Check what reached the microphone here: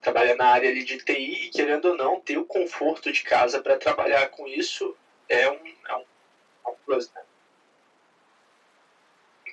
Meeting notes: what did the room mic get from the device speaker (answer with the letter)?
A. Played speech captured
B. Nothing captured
A